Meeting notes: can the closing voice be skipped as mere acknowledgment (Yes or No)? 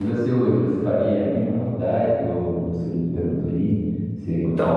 No